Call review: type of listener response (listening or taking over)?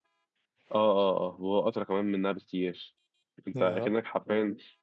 listening